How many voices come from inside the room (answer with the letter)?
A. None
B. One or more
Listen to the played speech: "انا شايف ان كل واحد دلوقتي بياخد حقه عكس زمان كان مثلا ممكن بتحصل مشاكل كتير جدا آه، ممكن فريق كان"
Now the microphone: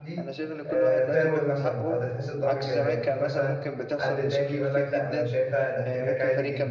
B